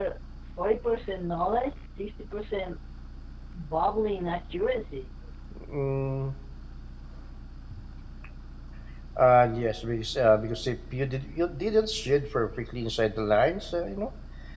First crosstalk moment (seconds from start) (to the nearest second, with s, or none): none